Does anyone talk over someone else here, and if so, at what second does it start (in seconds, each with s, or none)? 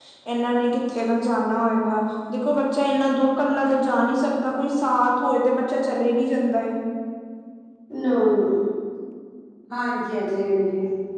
none